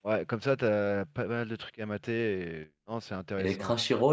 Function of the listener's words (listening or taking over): taking over